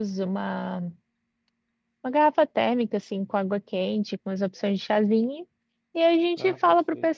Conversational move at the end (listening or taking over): listening